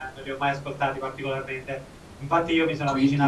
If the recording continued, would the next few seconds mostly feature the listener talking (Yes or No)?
No